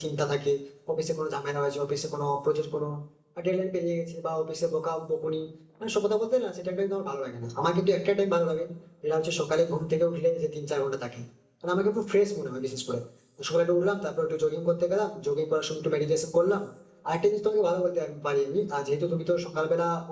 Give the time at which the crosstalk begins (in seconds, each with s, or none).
none